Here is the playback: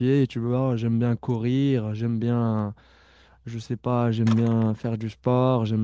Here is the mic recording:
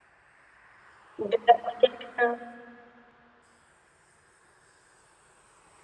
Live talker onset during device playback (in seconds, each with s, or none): 1.2 s